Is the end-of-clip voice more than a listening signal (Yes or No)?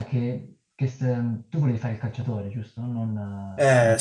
Yes